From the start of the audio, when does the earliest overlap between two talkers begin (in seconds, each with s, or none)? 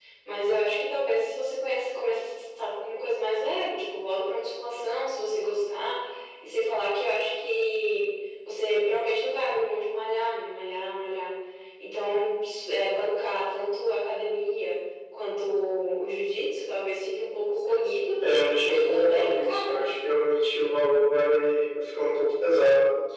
18.7 s